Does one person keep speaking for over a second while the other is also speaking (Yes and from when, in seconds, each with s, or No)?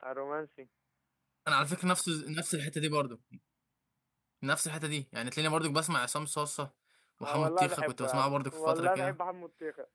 Yes, from 7.2 s